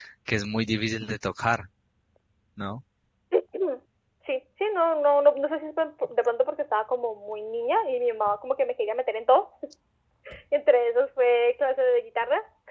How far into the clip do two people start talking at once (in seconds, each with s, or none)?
none